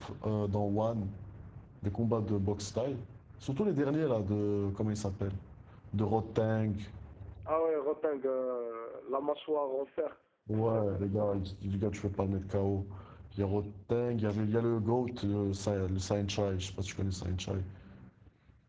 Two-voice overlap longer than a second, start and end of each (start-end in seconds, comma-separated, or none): none